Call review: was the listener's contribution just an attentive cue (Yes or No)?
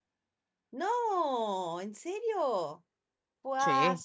Yes